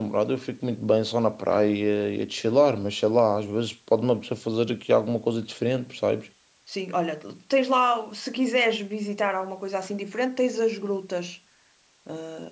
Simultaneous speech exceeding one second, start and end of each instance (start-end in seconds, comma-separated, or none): none